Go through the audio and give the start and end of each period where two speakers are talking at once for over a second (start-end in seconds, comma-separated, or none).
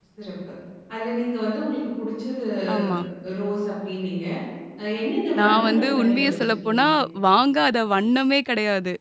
5.4-6.8